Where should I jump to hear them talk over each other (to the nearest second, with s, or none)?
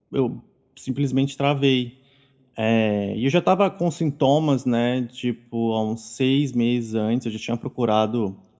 none